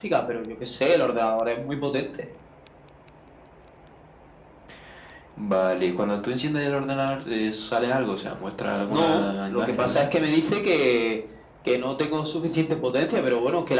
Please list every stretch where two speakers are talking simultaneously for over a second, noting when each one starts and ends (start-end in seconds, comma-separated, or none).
8.9-10.1